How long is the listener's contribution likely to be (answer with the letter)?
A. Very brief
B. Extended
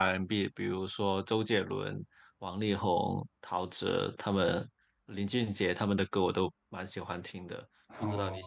B